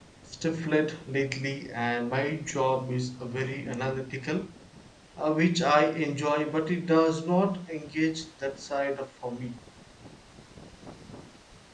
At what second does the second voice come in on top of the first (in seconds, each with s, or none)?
none